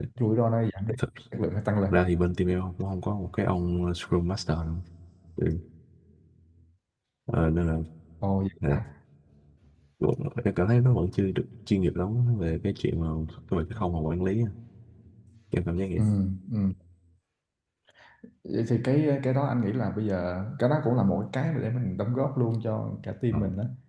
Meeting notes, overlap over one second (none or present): none